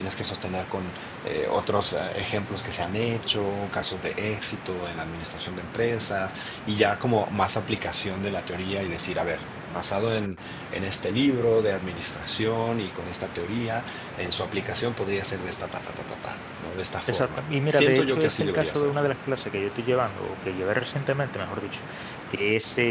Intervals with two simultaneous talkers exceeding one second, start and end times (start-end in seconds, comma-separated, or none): 17.1-18.9